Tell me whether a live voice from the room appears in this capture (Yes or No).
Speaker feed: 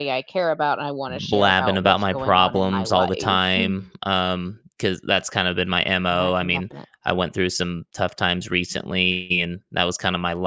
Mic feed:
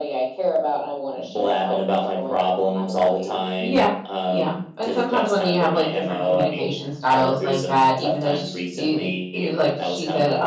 Yes